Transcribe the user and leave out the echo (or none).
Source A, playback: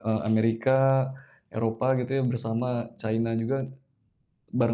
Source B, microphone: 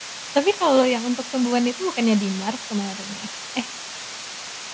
Tapi kalau yang untuk tumbuhan itu bukannya di Mars kemarin ya? Eh,